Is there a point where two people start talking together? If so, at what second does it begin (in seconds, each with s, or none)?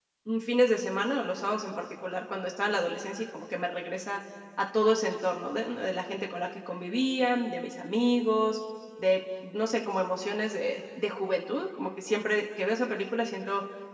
none